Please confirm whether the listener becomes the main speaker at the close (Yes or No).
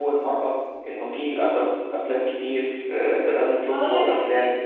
Yes